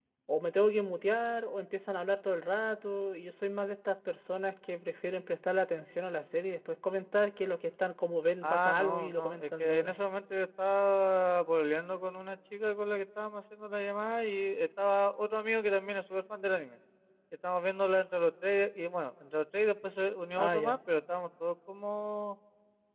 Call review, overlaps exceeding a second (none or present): present